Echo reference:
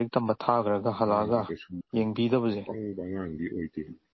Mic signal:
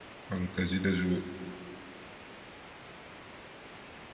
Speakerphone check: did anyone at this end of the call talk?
Yes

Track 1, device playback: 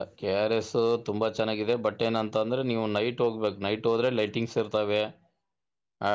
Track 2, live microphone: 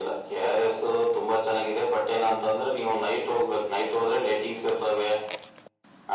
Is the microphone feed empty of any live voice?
Yes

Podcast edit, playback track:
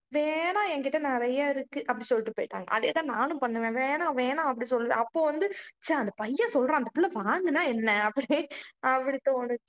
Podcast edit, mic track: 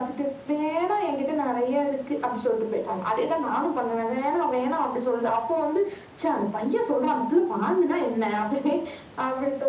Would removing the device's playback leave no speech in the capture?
Yes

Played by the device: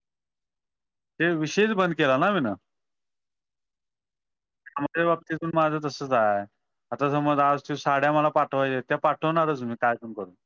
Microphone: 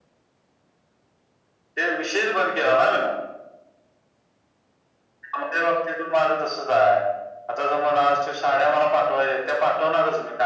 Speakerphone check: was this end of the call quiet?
Yes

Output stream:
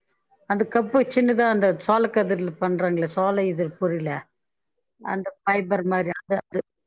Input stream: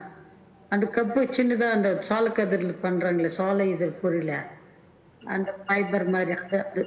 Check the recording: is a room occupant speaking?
No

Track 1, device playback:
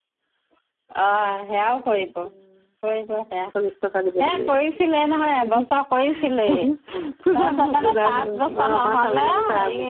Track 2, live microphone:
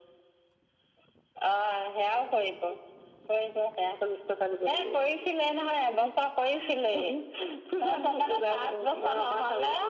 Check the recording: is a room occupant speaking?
No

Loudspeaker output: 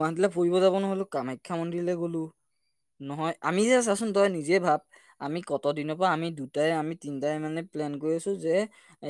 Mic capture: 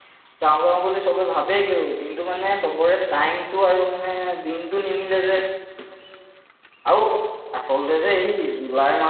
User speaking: Yes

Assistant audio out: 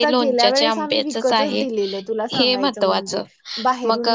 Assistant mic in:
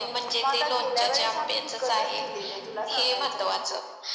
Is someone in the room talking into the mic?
No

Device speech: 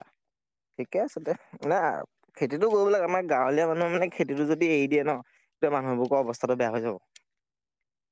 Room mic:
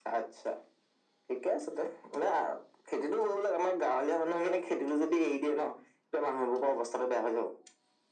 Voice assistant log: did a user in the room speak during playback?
No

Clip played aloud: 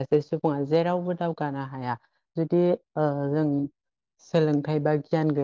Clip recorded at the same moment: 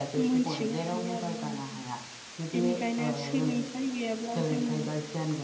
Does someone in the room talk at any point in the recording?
Yes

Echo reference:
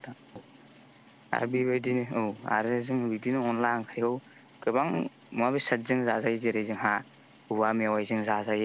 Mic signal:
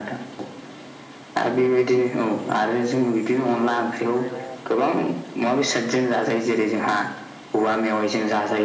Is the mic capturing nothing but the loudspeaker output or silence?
No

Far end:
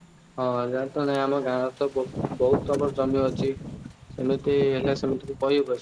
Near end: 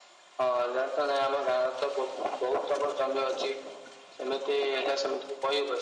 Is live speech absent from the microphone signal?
Yes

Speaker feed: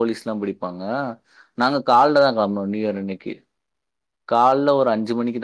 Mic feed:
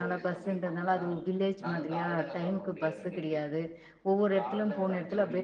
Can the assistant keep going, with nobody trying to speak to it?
No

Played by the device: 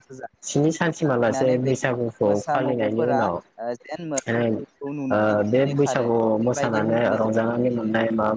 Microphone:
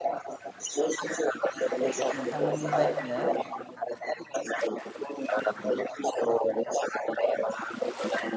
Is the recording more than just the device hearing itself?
Yes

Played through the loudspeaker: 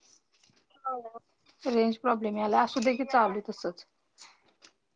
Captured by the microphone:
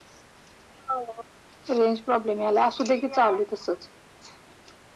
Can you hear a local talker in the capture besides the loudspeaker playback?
No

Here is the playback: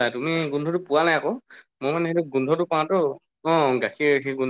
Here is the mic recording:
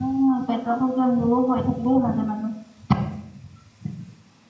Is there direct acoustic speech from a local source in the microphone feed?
Yes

